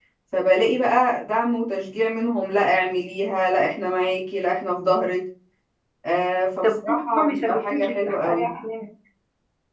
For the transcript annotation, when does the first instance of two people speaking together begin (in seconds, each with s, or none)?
6.6 s